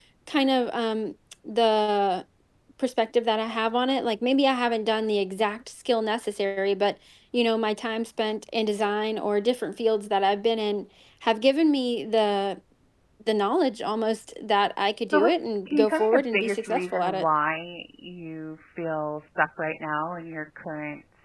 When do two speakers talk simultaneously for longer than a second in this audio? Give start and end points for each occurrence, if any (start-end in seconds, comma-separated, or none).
15.1-17.2